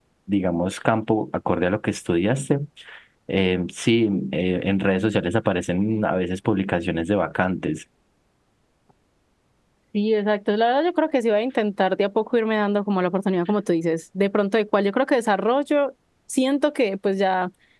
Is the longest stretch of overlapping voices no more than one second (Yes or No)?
Yes